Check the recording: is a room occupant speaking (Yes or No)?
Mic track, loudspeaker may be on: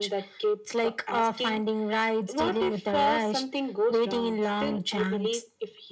No